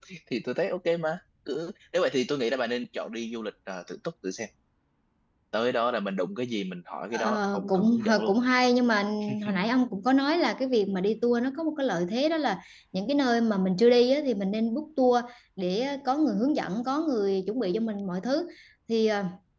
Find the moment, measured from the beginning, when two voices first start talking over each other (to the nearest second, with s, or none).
7 s